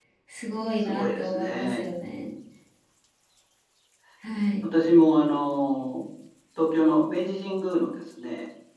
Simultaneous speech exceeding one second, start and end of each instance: 0.8-2.2

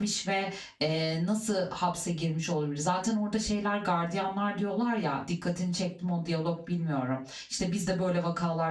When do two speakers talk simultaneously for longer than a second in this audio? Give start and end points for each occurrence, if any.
none

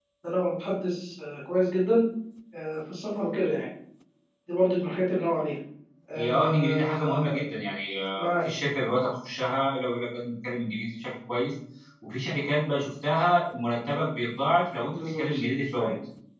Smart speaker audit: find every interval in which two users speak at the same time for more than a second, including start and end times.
6.2-7.4

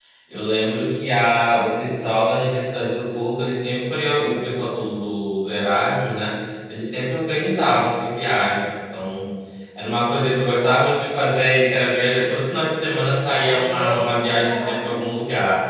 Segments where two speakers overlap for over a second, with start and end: 13.4-15.1

